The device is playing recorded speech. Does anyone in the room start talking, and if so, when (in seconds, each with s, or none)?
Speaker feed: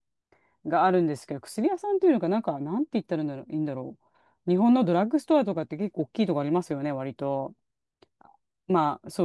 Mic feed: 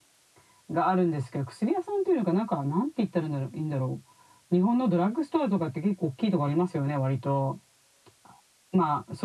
none